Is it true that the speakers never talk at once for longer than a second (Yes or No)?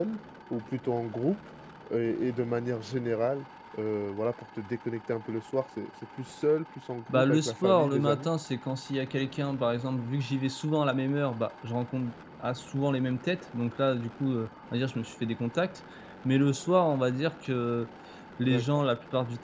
No